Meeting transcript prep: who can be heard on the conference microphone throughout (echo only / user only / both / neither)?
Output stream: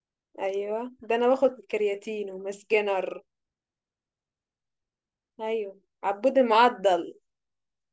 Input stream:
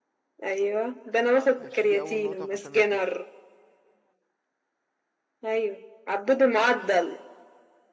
both